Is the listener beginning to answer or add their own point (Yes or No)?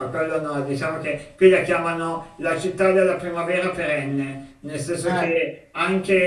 No